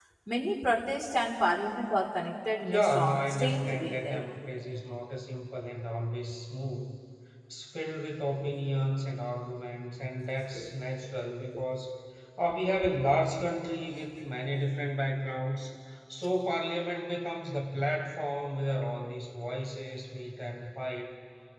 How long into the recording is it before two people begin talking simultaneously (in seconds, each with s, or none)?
2.6 s